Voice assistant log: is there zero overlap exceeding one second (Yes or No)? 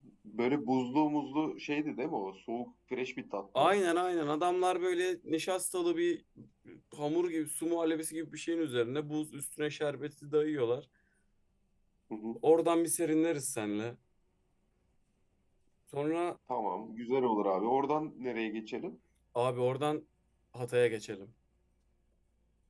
Yes